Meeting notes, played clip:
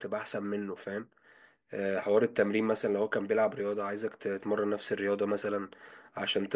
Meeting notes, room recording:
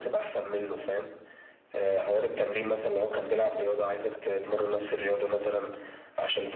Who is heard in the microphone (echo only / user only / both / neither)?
echo only